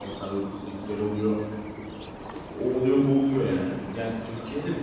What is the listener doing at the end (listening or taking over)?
taking over